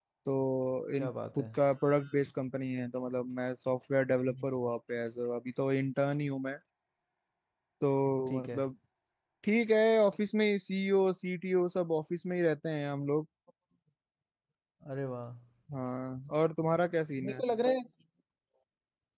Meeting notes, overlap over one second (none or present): none